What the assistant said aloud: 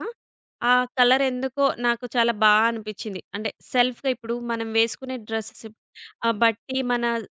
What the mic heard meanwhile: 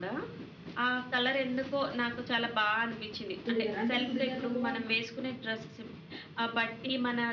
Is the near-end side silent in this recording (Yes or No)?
No